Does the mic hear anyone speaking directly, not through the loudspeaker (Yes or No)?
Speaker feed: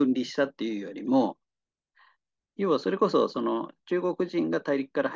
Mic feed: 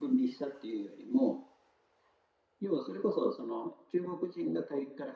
No